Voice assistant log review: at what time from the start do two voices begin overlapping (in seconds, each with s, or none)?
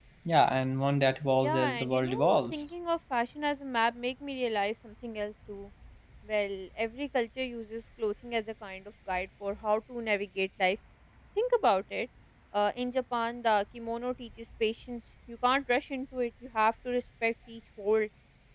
1.4 s